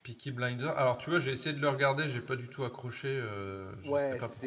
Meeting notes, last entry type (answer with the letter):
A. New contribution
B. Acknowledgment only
A